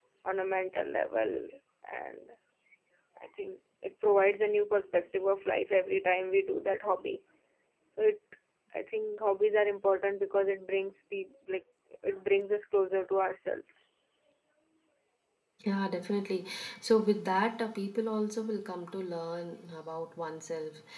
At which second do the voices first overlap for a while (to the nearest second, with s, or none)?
none